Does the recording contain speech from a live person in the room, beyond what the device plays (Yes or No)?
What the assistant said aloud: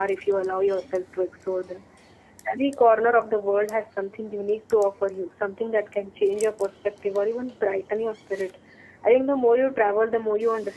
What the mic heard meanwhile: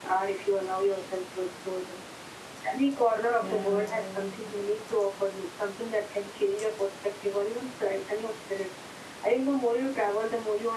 Yes